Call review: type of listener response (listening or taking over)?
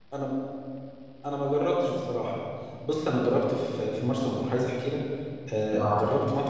listening